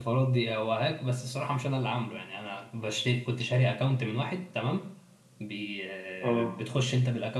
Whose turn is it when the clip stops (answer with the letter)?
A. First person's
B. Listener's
A